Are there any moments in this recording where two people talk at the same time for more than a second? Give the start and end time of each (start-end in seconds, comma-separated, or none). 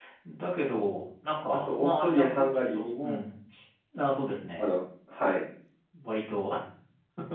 1.7-3.2